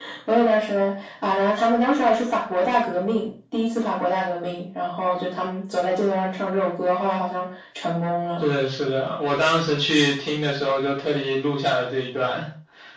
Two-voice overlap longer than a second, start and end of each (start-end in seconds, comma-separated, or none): none